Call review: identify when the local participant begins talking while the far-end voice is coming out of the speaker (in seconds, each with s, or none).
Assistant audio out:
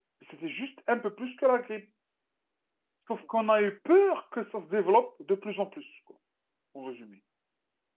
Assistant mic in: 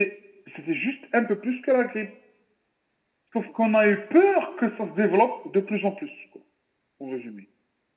none